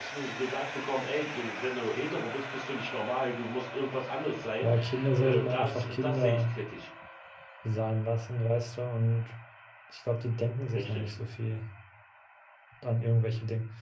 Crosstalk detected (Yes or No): Yes